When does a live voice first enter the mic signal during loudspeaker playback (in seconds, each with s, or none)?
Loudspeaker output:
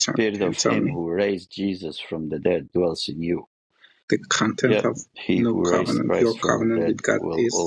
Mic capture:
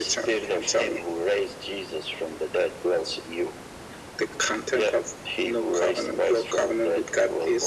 none